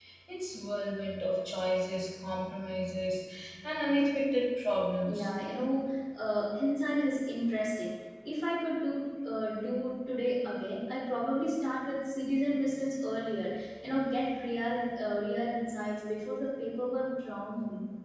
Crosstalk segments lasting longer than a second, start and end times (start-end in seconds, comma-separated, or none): none